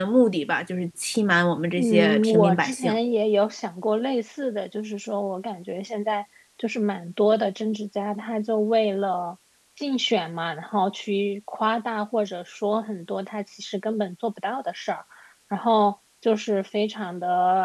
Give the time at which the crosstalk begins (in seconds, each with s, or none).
1.7 s